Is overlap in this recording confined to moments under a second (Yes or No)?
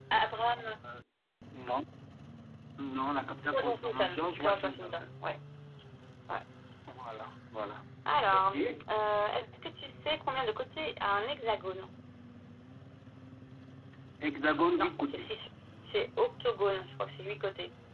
No